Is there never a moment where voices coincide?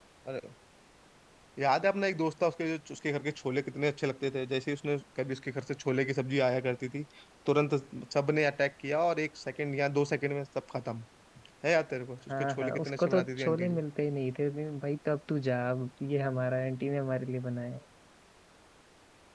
No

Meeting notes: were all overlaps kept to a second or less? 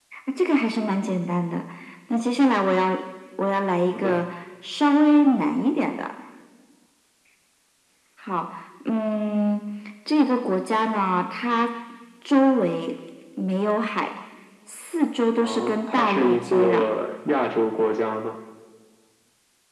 No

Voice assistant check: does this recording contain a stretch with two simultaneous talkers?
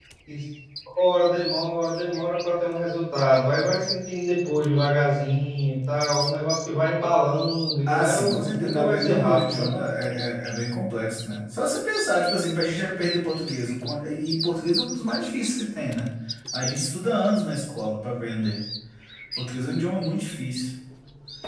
Yes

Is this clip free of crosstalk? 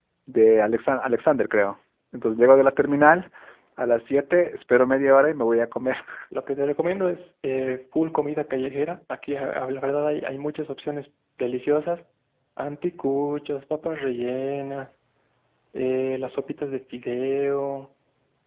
Yes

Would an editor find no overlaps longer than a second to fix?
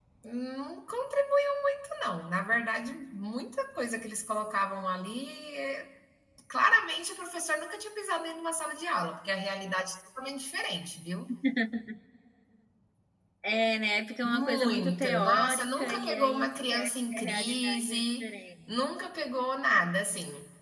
No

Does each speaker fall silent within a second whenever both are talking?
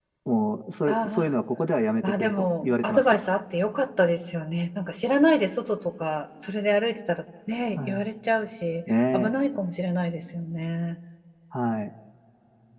No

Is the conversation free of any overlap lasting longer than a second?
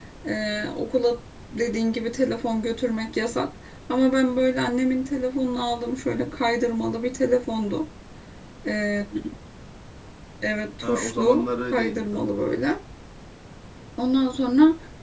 No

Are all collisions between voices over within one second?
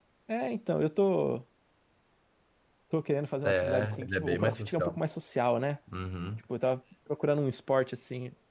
No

